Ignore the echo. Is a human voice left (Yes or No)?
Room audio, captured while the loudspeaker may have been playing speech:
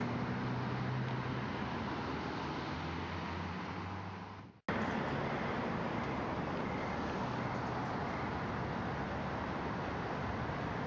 No